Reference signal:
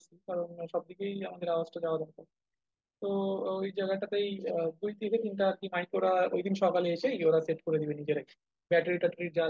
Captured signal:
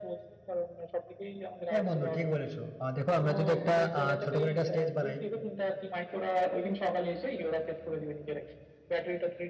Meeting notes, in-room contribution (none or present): present